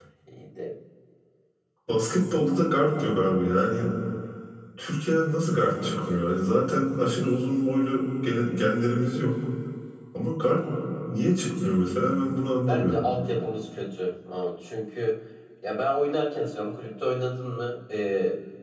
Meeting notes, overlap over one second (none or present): none